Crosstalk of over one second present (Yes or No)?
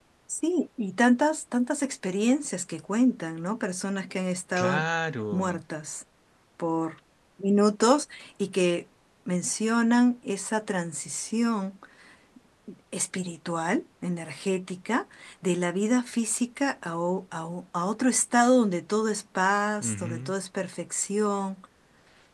No